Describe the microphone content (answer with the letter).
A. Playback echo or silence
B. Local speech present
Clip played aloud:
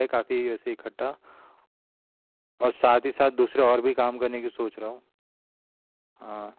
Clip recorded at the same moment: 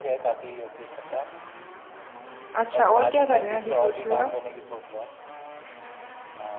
B